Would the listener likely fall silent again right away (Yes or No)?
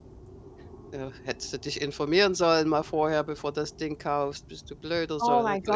No